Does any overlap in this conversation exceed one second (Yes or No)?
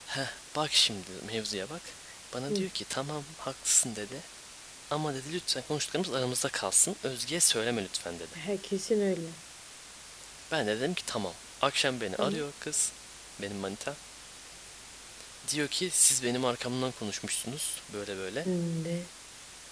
No